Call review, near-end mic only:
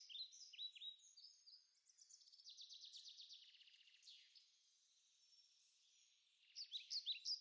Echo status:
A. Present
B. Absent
B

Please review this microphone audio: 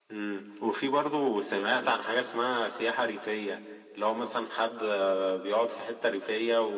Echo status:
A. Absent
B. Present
B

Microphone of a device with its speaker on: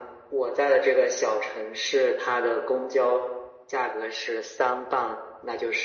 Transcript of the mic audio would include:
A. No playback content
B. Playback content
B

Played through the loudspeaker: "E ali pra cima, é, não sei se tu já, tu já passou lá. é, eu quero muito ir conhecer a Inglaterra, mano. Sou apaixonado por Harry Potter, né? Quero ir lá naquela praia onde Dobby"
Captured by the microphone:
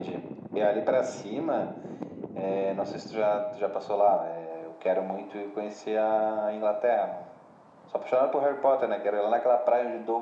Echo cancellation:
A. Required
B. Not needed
A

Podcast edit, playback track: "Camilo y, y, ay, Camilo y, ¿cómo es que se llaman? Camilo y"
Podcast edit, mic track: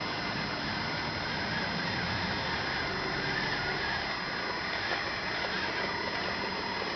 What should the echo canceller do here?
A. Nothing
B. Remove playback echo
A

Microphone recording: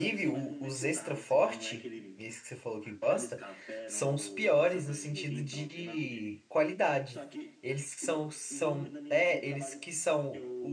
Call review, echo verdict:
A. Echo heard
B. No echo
A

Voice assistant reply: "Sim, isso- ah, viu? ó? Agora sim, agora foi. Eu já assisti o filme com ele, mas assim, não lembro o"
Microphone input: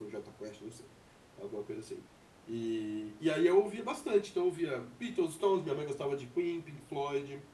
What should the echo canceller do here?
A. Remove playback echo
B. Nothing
B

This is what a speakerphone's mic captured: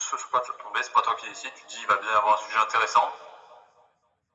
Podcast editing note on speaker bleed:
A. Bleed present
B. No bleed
A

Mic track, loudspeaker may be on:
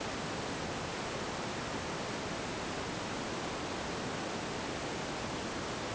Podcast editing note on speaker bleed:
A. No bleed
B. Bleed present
A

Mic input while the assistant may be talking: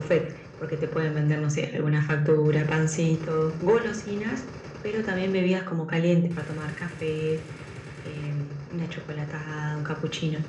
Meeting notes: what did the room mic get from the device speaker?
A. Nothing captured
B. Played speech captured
B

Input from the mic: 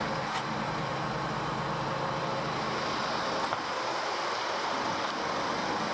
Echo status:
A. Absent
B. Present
A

